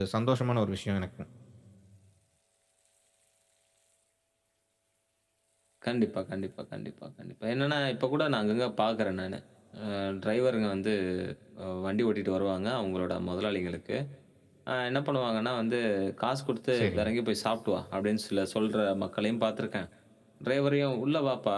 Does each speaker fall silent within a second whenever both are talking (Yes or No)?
Yes